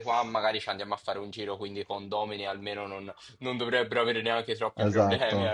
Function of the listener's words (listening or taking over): taking over